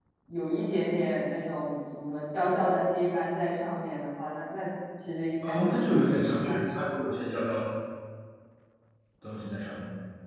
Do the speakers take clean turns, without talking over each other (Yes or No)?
No